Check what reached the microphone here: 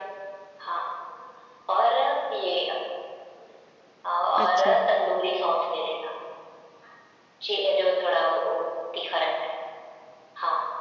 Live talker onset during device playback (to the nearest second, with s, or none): 4 s